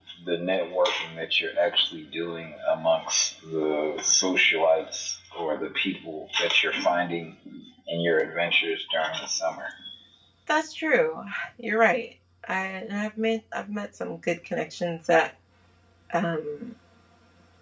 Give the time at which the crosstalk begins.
none

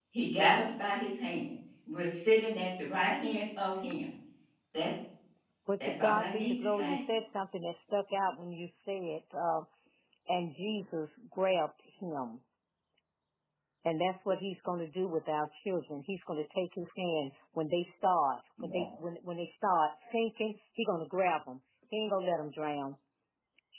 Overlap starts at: 5.8 s

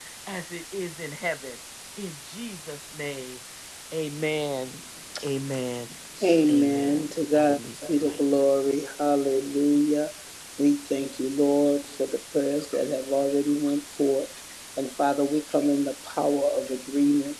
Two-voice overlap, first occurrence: 6.5 s

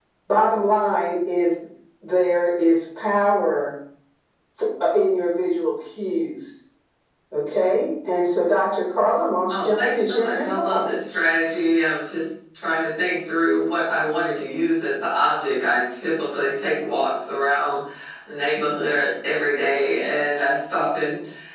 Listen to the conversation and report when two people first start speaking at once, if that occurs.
9.5 s

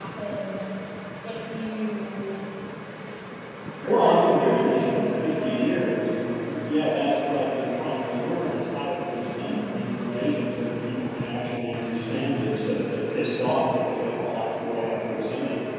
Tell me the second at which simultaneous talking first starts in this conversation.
3.9 s

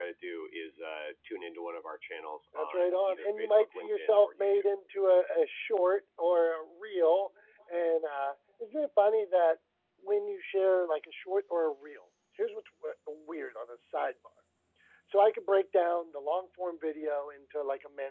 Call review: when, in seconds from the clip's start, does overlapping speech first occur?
2.5 s

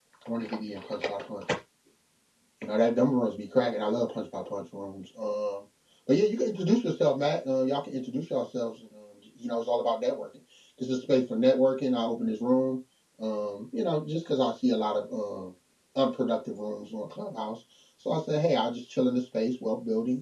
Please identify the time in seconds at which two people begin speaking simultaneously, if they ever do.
none

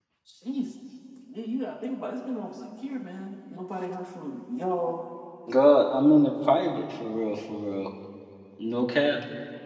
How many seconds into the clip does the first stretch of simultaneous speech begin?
none

